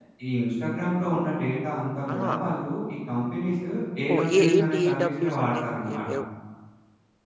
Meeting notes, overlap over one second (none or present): present